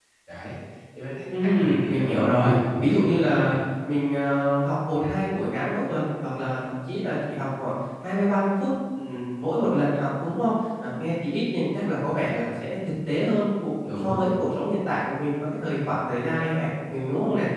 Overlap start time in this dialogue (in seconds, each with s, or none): 1.6 s